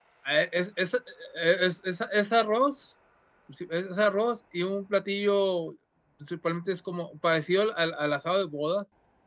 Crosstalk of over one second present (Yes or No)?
No